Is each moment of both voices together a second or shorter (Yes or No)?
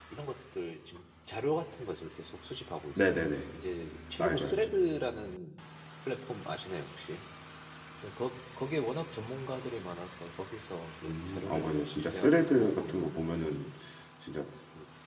No